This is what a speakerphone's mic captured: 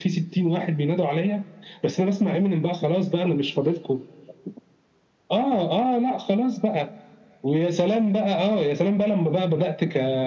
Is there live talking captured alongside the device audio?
No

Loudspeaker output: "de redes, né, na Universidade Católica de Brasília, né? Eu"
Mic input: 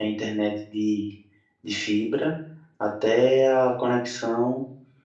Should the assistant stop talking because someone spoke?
Yes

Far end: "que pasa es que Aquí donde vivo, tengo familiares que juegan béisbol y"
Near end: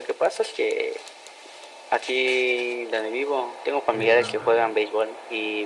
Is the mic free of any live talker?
No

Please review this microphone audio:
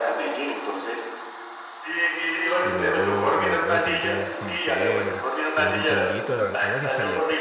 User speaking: Yes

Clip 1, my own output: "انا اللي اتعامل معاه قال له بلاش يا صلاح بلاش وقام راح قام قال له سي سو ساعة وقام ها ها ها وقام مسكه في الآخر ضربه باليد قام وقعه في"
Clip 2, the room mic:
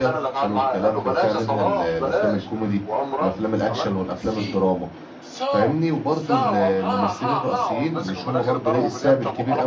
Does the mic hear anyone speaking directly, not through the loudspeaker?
Yes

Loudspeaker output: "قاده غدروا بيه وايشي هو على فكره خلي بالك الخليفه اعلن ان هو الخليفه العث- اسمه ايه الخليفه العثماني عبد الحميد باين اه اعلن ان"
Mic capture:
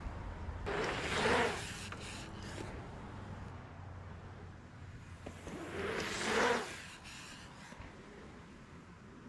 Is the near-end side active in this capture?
No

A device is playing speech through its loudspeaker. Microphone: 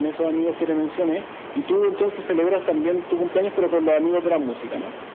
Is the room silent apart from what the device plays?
Yes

